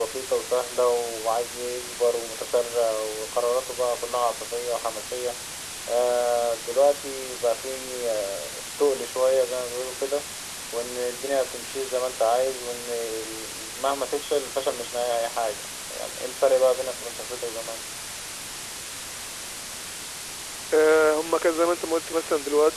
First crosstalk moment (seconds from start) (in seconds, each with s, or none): none